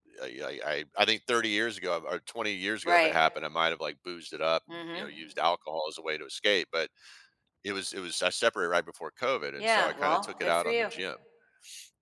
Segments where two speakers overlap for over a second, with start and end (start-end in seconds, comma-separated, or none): 9.6-10.8